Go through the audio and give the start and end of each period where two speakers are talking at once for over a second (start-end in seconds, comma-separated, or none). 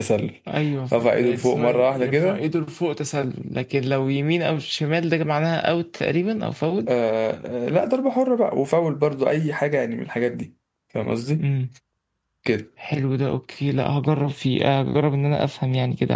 1.0-2.4